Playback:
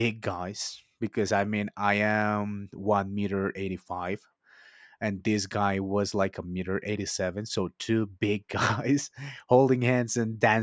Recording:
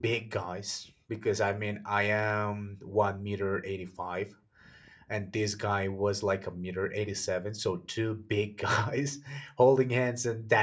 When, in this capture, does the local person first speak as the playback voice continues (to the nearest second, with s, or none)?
none